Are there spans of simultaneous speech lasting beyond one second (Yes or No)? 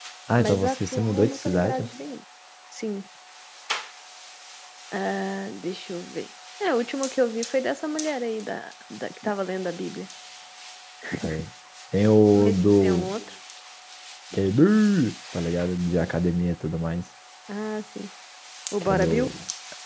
Yes